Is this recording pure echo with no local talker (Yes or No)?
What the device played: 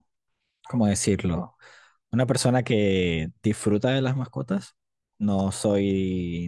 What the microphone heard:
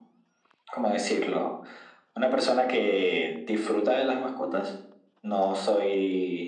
Yes